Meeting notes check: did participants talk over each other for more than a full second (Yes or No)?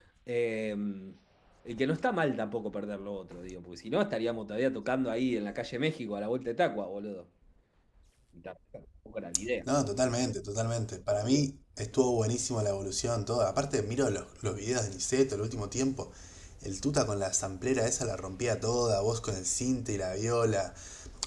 No